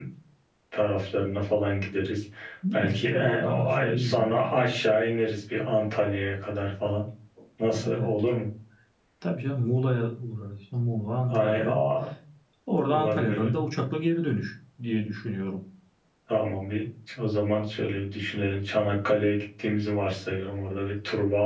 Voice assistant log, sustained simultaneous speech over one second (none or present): present